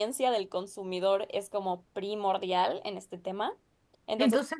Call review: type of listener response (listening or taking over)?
listening